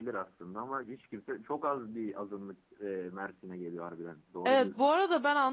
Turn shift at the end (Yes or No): Yes